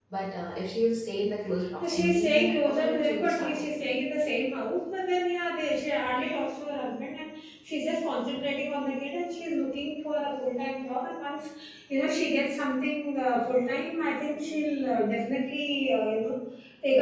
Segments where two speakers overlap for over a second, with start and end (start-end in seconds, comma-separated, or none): 1.8-4.0